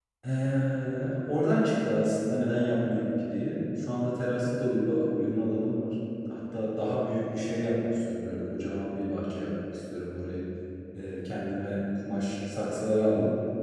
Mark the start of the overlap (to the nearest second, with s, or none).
none